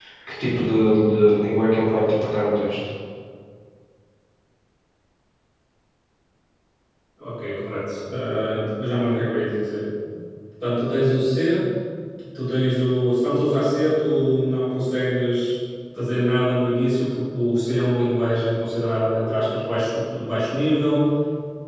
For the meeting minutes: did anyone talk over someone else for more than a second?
No

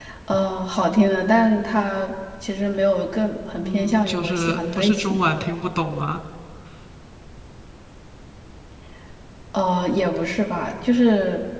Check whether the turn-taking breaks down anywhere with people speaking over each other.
Yes, from 3.6 s

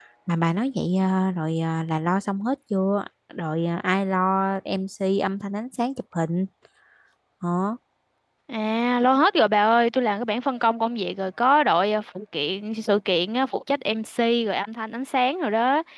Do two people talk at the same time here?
No

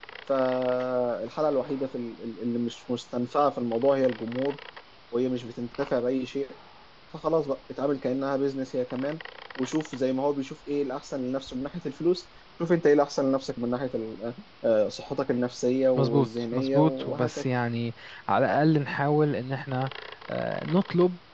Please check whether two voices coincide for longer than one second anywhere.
Yes, from 16.0 s

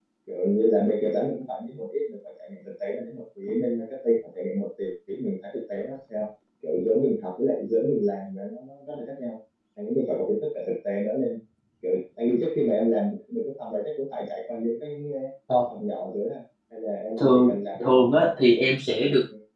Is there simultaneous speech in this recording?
Yes, from 17.2 s

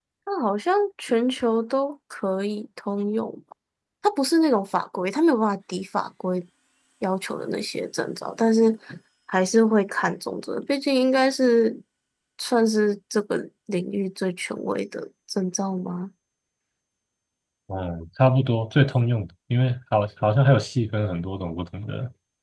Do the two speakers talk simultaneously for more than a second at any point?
No

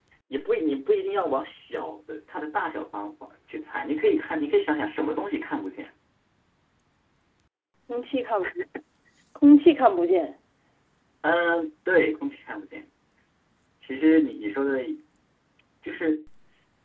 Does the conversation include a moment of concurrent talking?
No

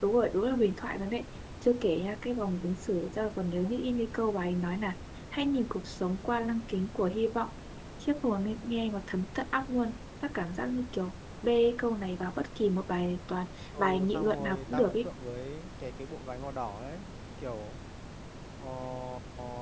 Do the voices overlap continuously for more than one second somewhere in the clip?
Yes, from 13.7 s

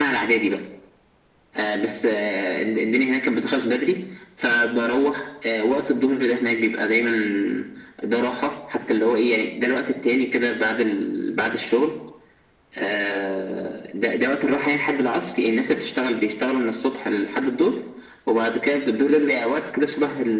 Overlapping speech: No

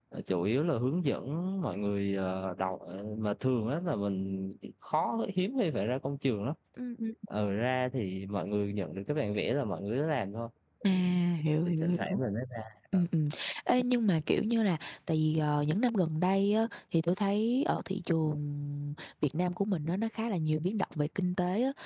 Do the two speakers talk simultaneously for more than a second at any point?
No

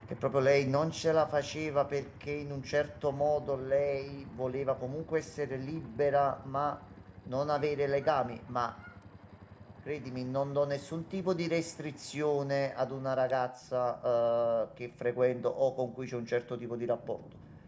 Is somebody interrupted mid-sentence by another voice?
No

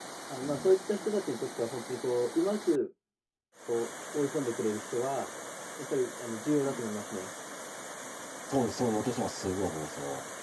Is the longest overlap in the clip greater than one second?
No

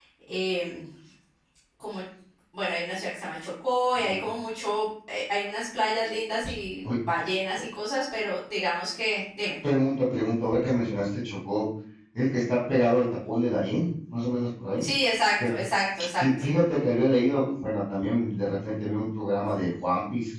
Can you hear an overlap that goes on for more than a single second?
No

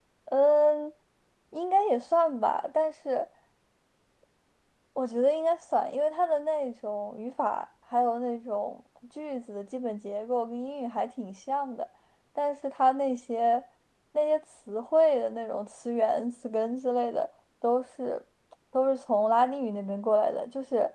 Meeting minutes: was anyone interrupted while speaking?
No

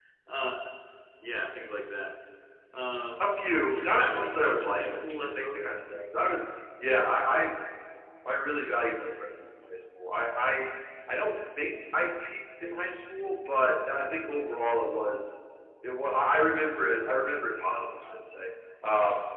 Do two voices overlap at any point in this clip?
Yes, from 3.7 s

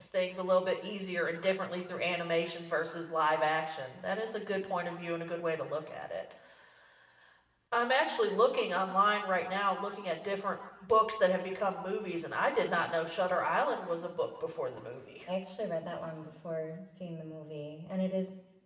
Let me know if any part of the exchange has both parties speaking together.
No

